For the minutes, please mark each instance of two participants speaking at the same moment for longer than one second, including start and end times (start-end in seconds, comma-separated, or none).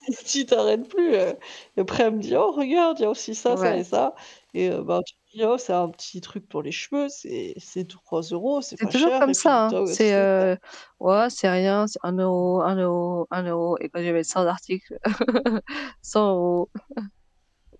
8.8-10.4